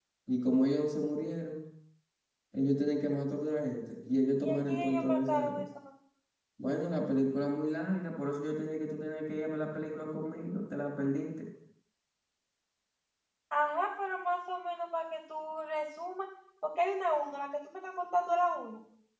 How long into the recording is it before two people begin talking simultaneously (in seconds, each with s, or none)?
4.4 s